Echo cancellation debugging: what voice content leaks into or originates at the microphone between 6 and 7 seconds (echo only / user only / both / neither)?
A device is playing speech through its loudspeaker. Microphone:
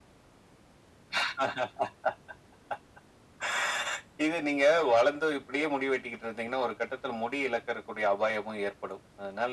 echo only